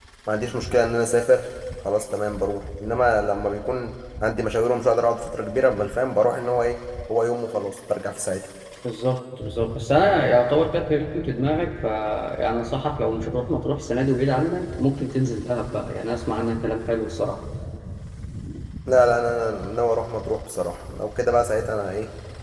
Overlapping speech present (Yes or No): No